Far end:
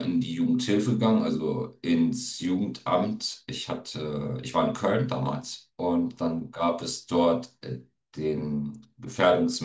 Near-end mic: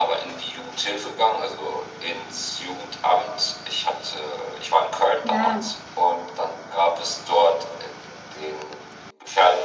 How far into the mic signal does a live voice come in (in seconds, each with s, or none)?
5.2 s